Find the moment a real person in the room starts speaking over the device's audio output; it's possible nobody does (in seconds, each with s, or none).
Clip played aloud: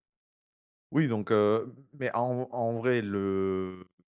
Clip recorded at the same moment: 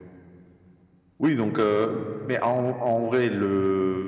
none